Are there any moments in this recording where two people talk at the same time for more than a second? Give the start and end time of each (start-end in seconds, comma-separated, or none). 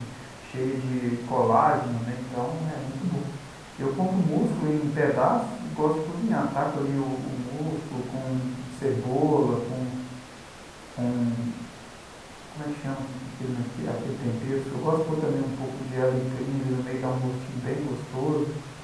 none